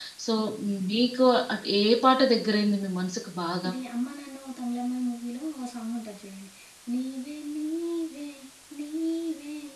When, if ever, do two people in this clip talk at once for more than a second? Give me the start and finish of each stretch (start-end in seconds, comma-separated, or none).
none